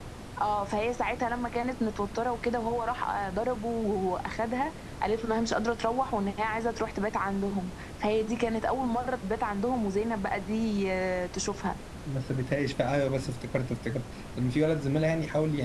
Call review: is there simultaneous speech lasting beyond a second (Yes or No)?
No